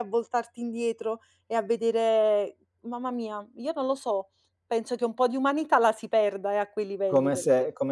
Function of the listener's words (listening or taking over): taking over